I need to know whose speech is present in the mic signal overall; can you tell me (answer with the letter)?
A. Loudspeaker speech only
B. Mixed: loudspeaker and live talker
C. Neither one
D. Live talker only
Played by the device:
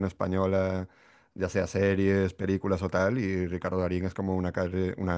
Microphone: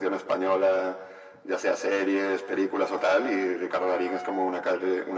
A